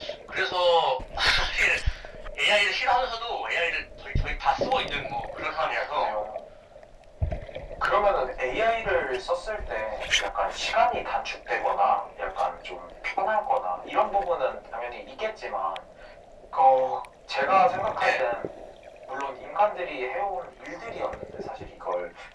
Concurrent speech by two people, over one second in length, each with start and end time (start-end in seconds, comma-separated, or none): none